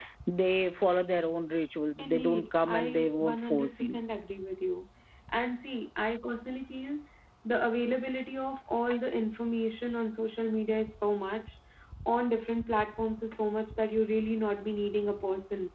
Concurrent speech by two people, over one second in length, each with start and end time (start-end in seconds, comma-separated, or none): 2.0-4.0